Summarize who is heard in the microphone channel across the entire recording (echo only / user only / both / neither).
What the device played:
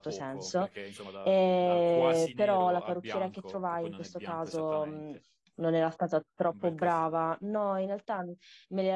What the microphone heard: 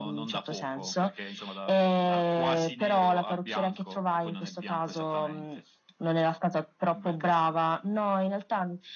echo only